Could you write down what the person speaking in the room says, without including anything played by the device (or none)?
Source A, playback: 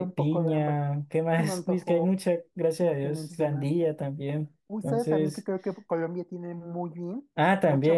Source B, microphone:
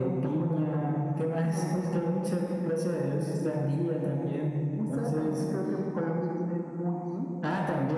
none